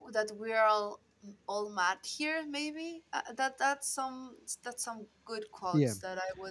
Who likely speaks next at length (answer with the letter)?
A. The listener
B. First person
B